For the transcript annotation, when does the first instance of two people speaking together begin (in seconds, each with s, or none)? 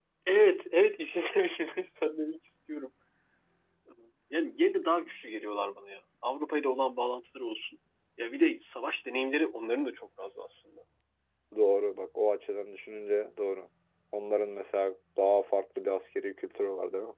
none